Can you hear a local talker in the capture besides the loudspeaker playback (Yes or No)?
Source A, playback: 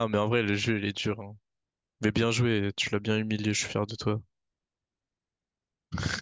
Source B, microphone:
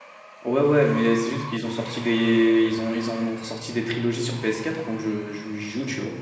Yes